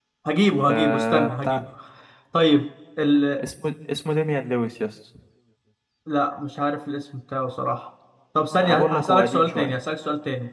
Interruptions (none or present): present